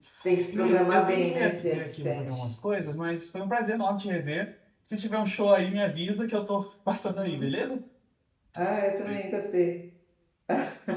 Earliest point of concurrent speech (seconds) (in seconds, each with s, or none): 0.5 s